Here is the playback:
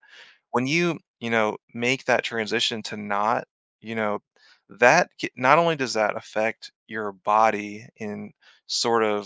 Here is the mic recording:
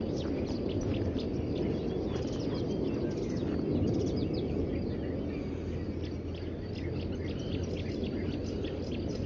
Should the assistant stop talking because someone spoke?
No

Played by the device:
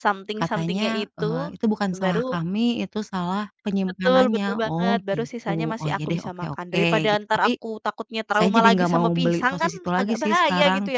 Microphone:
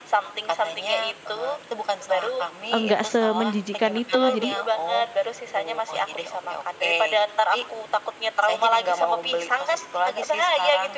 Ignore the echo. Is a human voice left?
Yes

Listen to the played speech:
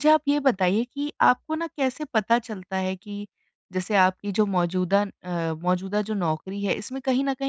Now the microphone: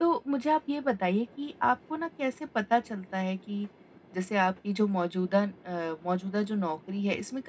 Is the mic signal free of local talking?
Yes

